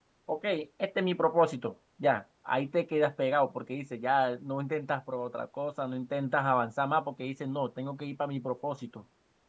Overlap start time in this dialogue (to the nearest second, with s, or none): none